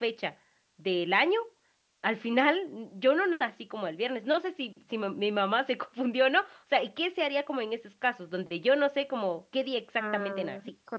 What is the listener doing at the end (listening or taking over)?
taking over